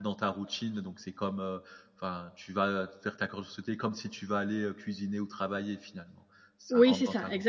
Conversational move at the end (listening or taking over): taking over